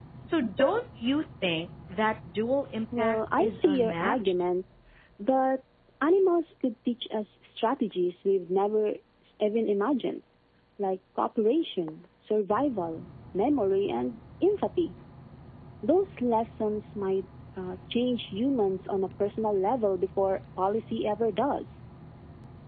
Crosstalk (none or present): present